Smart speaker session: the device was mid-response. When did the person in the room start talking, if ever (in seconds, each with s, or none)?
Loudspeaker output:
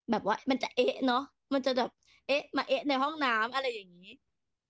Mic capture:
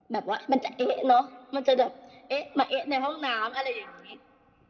none